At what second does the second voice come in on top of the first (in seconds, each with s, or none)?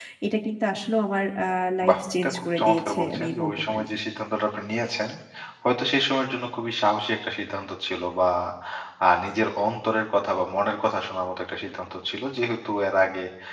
1.8 s